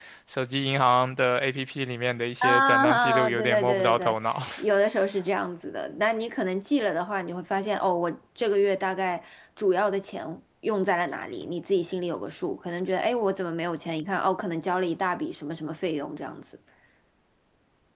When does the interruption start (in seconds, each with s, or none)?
2.4 s